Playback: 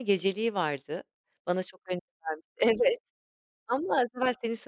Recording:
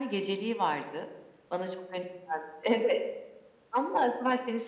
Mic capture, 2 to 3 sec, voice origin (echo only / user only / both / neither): echo only